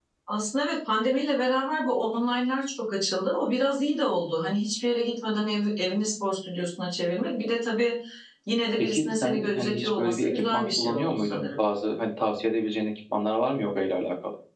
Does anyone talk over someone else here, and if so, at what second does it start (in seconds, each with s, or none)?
8.8 s